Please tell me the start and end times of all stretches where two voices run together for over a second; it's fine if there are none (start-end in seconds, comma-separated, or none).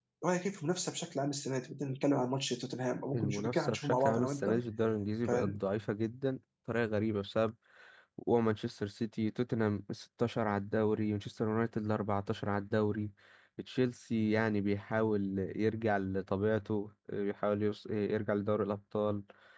3.1-4.5